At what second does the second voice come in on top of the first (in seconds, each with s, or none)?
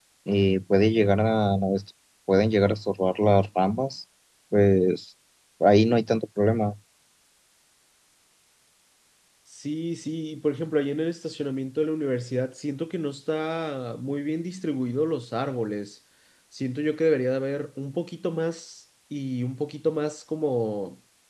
none